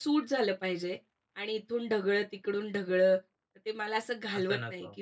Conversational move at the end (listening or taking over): listening